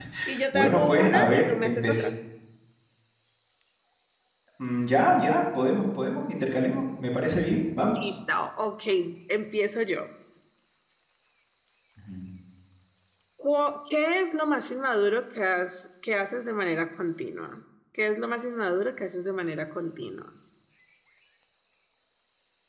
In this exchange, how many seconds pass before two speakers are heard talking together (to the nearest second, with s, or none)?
1 s